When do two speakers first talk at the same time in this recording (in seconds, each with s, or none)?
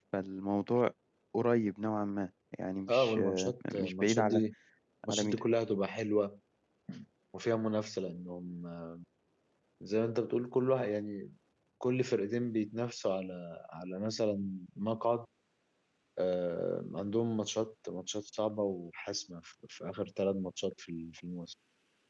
2.9 s